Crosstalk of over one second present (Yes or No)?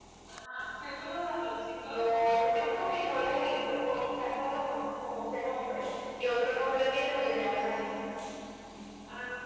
Yes